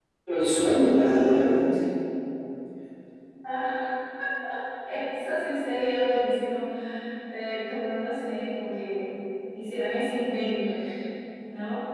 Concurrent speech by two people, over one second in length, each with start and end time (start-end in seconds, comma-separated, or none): none